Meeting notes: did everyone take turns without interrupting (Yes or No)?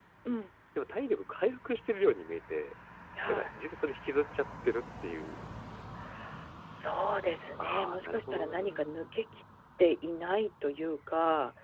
No